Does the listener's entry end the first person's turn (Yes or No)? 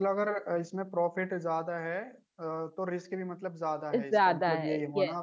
Yes